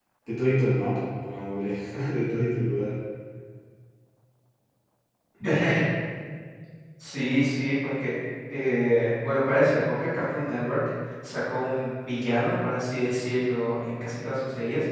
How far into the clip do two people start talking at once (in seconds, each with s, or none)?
none